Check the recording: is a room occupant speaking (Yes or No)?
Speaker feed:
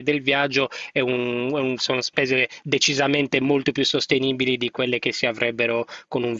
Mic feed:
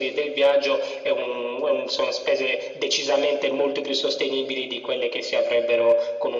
No